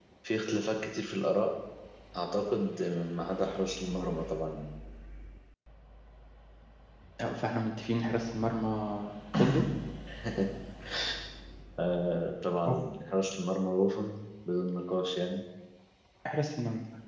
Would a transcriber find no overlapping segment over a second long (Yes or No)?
Yes